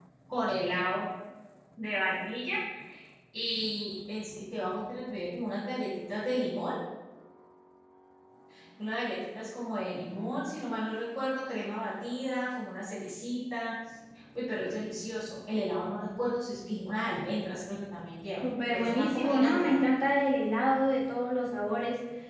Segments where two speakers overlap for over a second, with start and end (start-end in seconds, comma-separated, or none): 18.4-19.8